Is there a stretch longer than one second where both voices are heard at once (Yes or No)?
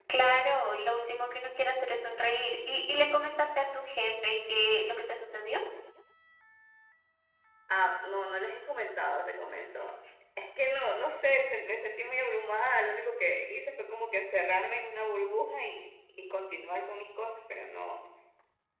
No